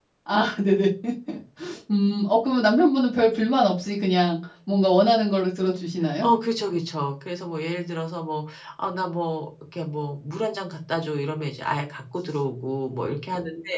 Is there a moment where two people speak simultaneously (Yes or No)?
No